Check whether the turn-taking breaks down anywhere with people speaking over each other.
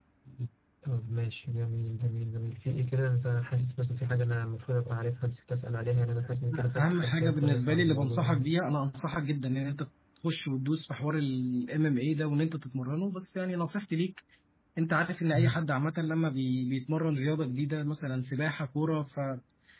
Yes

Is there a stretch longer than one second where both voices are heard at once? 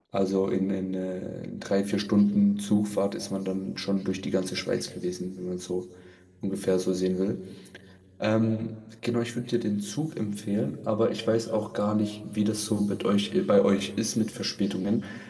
No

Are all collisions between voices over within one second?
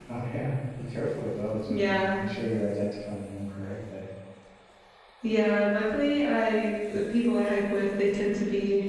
Yes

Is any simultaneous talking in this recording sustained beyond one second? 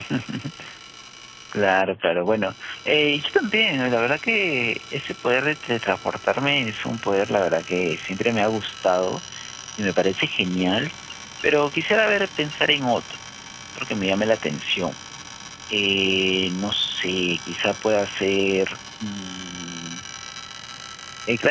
No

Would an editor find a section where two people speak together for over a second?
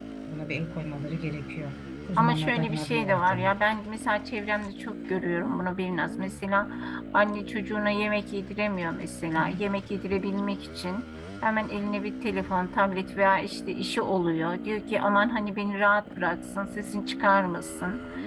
Yes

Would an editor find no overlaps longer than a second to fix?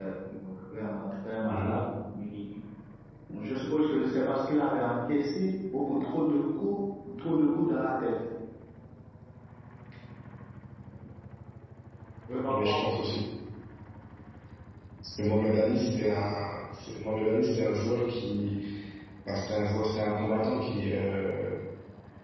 Yes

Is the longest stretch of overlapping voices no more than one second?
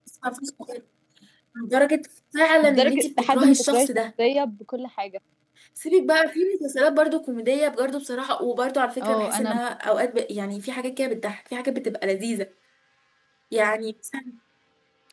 No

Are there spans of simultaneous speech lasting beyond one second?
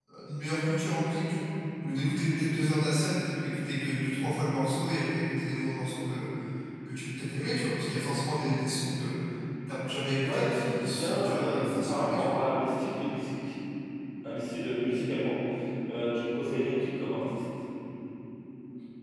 Yes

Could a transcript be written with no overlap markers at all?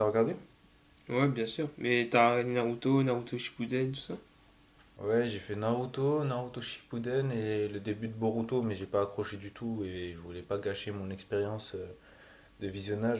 Yes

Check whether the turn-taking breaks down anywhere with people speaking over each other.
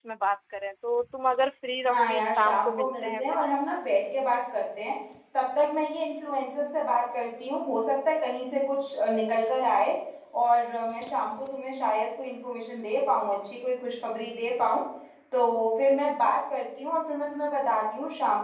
Yes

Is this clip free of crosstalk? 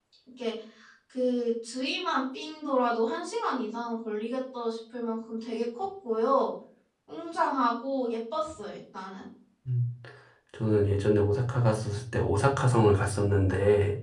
Yes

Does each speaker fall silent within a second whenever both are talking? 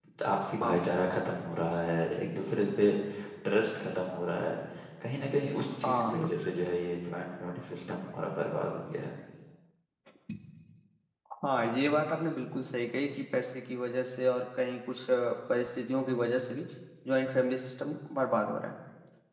Yes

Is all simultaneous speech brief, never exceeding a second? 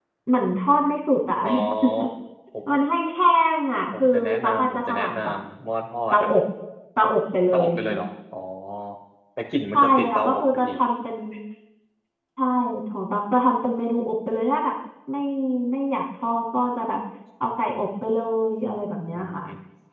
No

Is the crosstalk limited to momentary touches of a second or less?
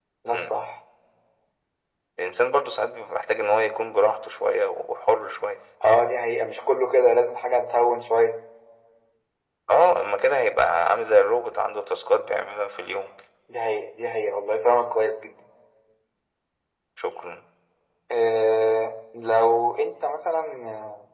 Yes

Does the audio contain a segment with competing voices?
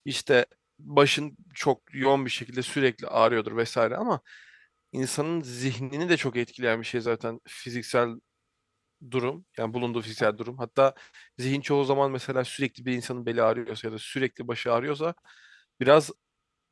No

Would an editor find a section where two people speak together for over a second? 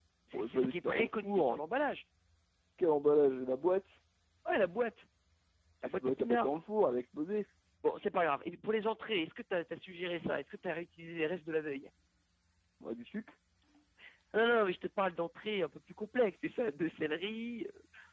Yes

